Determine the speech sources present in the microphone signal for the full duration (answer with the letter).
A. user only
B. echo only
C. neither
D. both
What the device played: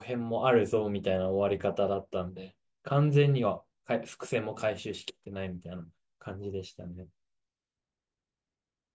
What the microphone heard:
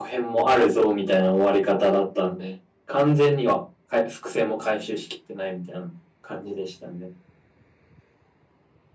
B